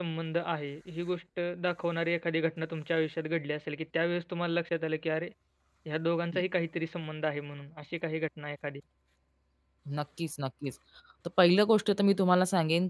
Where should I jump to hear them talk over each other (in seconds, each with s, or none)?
none